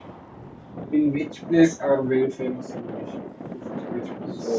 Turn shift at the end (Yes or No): Yes